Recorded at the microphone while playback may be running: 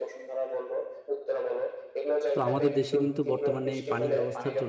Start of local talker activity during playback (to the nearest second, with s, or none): 2 s